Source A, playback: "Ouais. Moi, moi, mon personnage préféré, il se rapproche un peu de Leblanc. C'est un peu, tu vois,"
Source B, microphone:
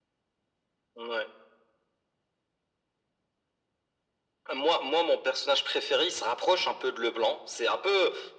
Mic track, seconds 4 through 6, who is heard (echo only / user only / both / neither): echo only